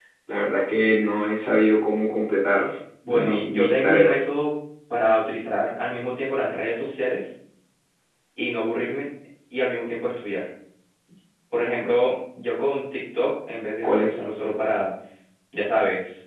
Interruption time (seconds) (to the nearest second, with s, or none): 3 s